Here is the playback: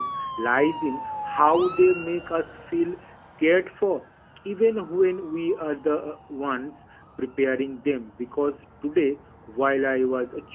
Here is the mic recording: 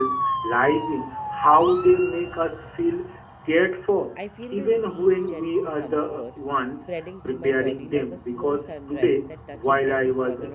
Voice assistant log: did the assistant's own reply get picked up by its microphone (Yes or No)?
Yes